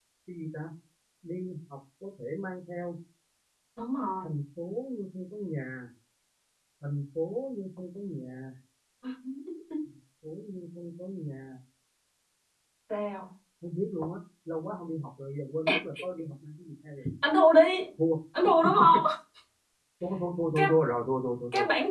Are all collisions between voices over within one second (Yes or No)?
Yes